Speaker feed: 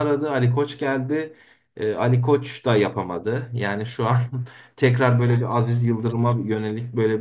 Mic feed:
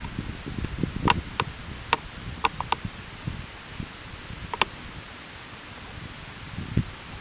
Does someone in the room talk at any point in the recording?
No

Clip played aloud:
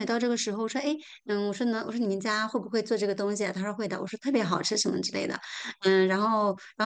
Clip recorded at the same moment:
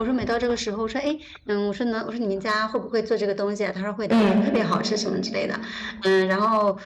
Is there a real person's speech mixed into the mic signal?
Yes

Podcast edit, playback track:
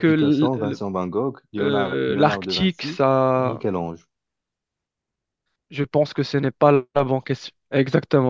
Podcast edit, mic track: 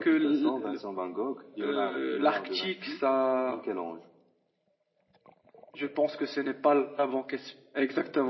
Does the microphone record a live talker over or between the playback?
No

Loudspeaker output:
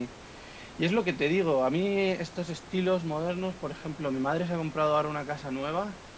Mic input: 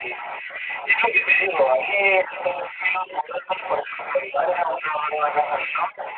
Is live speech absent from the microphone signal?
Yes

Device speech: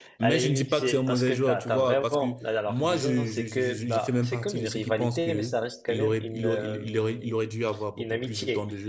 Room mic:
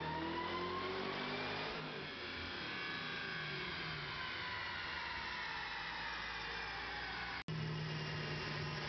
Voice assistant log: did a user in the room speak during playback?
No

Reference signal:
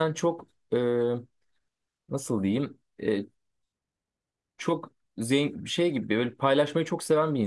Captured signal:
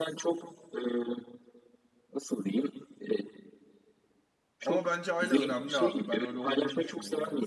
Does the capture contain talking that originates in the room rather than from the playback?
Yes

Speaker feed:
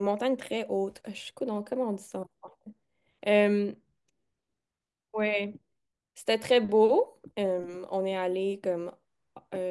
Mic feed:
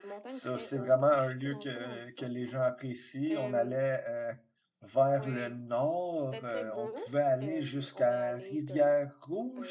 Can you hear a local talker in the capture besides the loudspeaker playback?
Yes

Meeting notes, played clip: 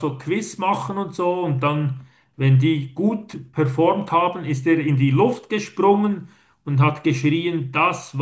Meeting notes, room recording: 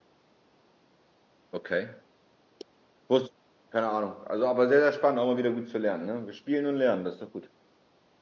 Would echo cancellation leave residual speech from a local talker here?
Yes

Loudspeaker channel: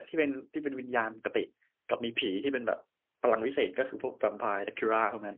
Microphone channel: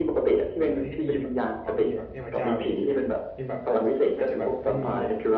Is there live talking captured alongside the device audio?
Yes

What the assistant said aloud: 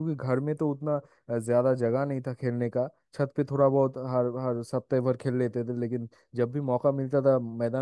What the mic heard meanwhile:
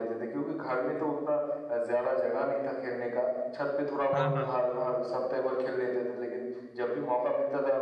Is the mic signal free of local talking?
No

